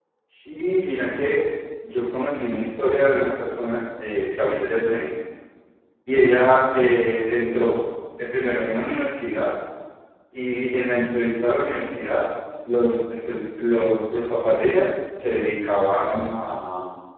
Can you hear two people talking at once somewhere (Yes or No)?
No